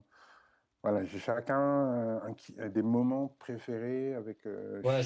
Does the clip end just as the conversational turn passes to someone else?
Yes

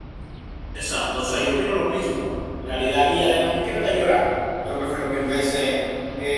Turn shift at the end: No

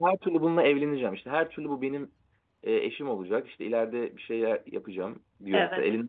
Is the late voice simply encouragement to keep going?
Yes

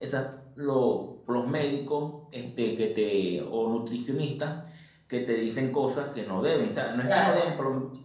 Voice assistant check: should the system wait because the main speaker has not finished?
Yes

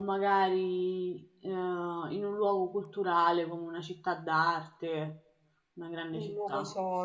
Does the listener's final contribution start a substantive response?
Yes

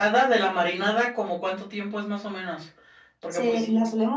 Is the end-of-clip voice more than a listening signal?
Yes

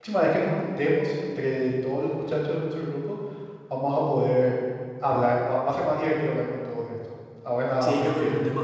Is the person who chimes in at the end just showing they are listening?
No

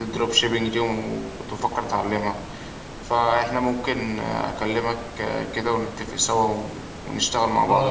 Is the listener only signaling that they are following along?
No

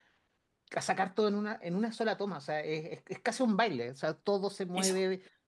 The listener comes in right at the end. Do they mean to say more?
No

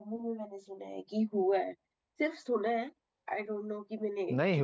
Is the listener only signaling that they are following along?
No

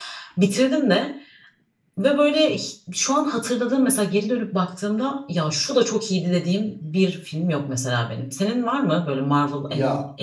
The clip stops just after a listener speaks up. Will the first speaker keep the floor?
No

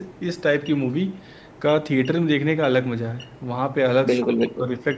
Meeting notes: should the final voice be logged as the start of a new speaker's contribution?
No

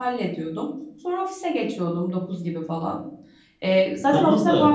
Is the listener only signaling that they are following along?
No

